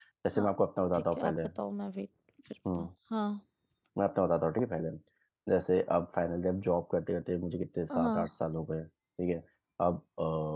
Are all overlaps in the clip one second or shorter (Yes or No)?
Yes